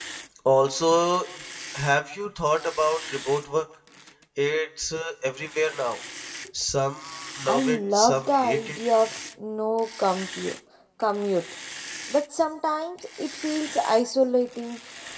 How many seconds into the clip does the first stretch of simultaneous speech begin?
7.5 s

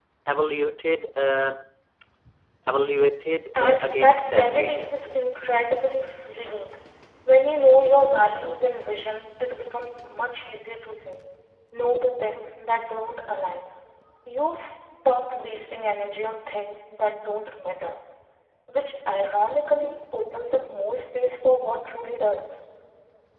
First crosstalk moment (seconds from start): 3.5 s

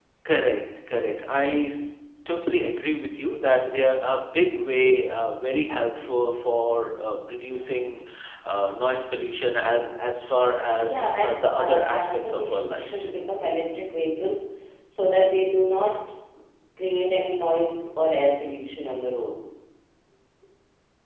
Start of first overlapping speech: 10.8 s

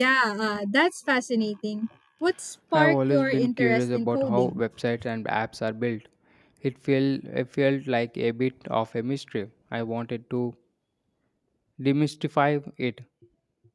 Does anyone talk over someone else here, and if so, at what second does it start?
2.7 s

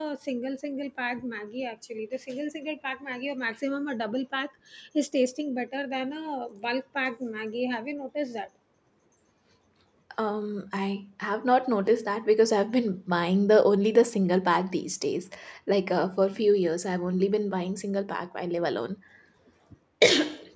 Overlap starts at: none

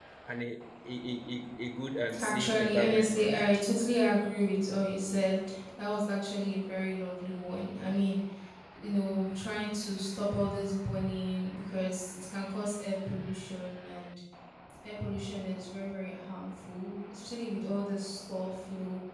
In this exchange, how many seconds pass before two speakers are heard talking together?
2.1 s

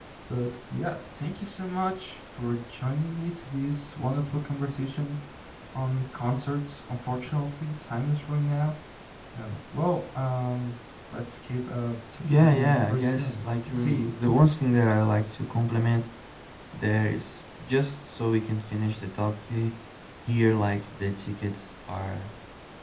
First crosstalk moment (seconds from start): 12.2 s

